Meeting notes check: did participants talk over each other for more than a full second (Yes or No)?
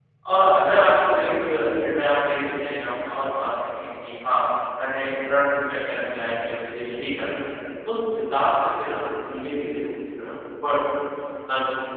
No